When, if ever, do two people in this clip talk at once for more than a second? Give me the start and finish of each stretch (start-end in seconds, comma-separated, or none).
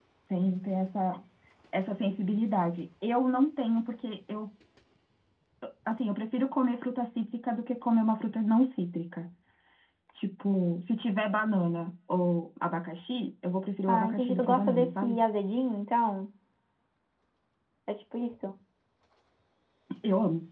13.9-15.2